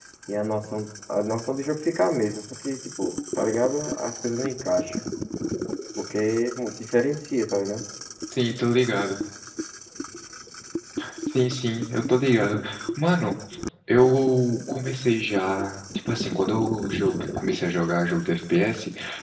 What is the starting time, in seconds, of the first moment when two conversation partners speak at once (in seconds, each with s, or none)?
none